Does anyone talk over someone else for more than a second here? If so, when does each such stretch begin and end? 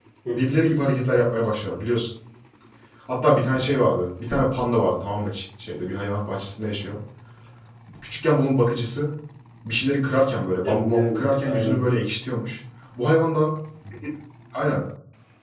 10.6-11.9

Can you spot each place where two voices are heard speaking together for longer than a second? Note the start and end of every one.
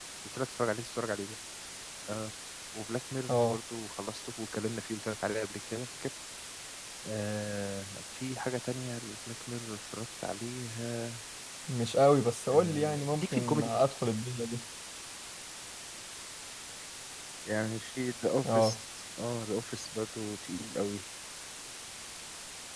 12.5-13.7

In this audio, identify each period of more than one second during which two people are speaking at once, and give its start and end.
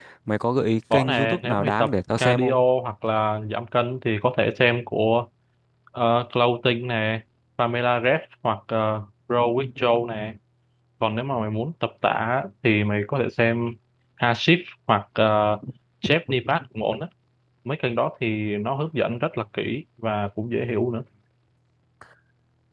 0.9-2.6

